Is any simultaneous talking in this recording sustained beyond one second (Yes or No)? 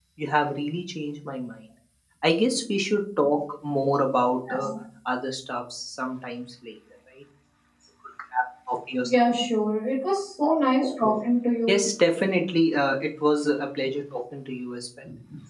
No